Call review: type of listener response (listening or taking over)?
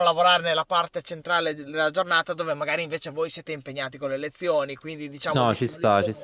taking over